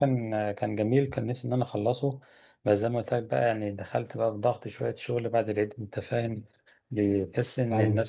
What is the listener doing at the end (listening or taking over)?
listening